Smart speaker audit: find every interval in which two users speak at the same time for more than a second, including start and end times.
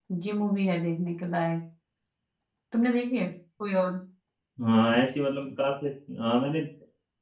none

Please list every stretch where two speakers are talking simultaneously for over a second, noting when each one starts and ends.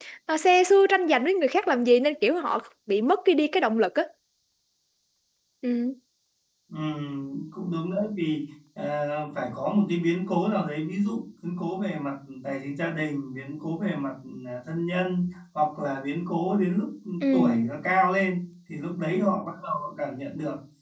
none

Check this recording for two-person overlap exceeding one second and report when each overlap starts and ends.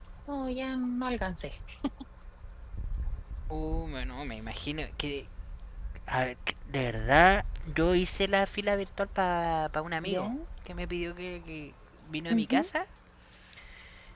none

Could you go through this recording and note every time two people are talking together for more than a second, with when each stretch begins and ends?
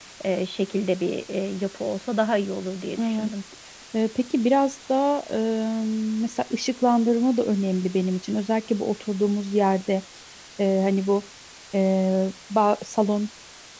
none

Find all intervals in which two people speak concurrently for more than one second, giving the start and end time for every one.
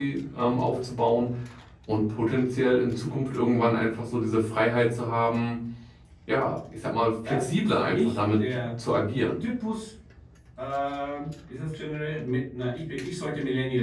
7.3-8.7

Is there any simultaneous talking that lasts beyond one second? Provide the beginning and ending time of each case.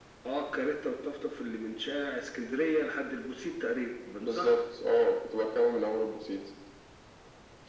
none

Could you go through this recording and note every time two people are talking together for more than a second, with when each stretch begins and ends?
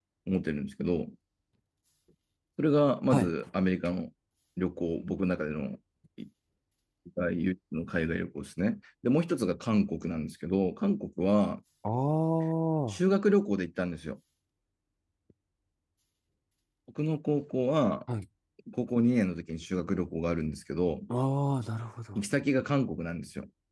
none

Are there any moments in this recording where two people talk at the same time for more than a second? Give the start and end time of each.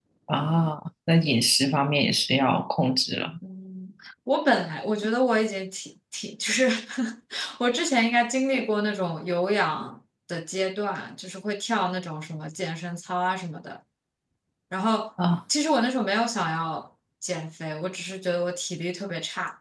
none

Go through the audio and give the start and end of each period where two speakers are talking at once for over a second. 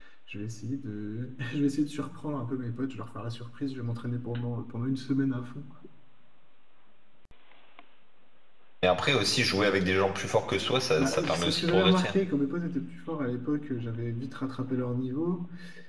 11.0-12.2

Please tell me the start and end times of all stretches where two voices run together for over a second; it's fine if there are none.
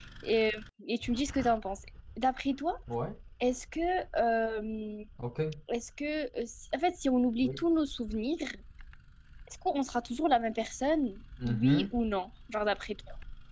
none

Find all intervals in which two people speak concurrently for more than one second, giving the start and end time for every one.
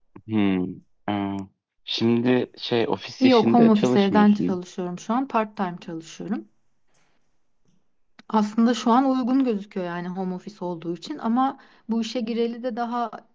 3.2-4.6

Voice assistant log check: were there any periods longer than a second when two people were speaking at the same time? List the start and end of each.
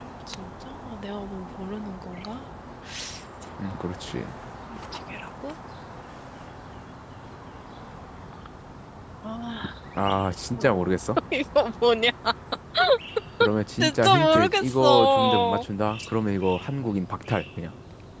13.8-15.6

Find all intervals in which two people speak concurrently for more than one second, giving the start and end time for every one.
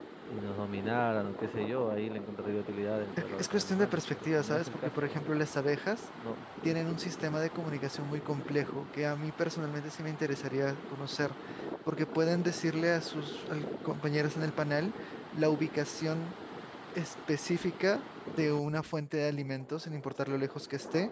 3.2-5.3

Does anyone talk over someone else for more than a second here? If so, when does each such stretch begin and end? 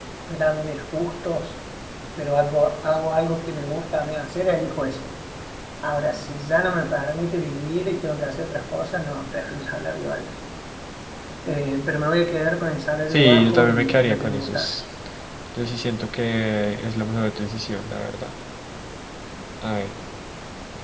13.1-14.7

